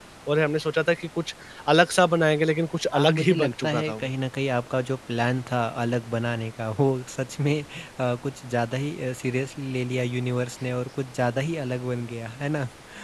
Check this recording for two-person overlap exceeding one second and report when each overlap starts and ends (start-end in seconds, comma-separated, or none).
2.9-4.1